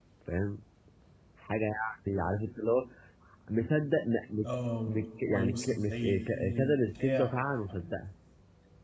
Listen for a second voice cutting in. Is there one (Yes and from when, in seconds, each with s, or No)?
Yes, from 4.9 s